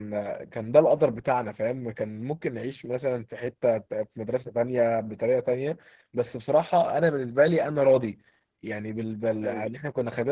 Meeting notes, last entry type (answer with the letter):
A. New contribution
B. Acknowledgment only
B